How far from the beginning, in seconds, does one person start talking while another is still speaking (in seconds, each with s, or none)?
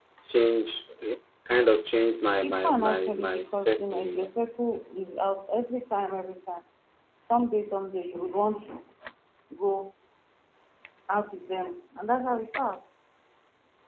2.4 s